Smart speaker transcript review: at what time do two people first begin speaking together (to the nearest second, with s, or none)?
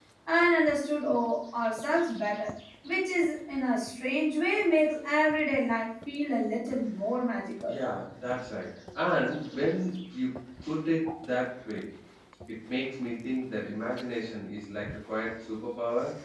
none